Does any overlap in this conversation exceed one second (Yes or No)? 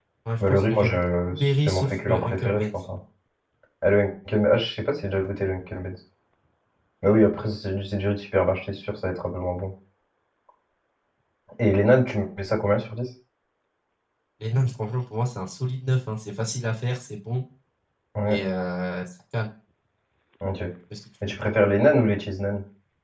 Yes